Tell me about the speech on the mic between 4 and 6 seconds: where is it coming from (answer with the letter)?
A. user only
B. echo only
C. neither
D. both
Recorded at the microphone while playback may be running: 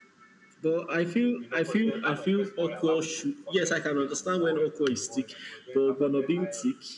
D